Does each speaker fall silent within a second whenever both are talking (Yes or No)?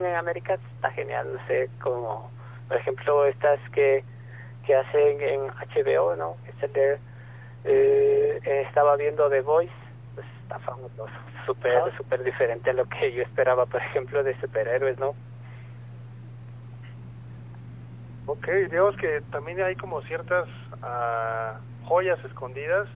Yes